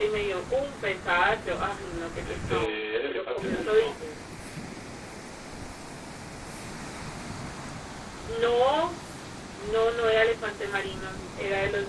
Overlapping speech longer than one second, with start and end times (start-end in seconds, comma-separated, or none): 2.2-4.0